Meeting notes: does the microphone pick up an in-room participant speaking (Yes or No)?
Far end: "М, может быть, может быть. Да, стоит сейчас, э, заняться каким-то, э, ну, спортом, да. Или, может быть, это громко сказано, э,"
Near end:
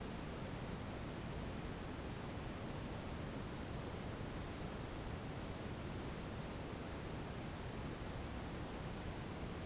No